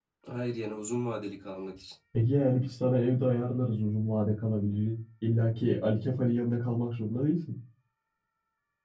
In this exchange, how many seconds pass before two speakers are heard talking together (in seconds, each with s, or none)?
none